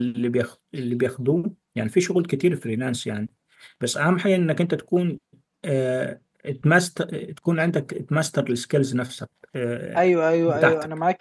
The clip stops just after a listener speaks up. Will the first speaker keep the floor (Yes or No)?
No